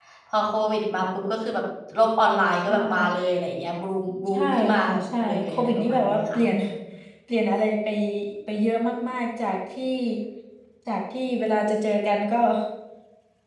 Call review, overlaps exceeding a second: present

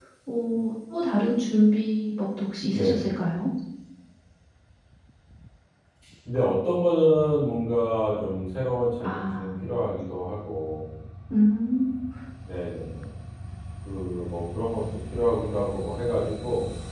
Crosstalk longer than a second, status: none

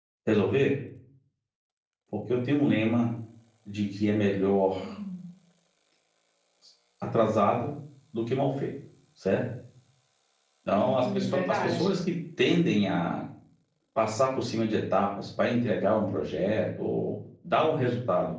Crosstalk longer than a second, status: present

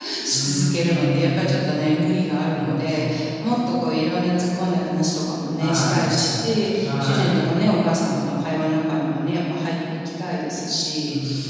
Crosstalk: present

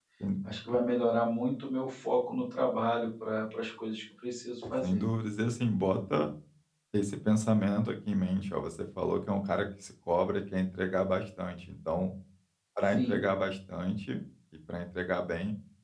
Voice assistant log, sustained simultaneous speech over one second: none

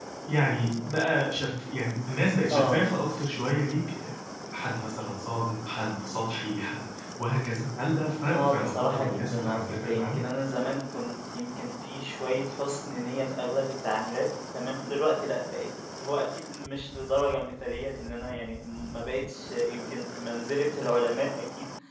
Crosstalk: present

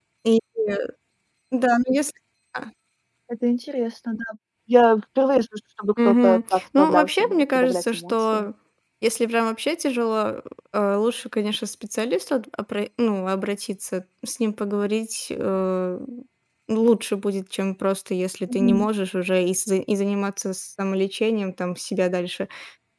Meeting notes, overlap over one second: present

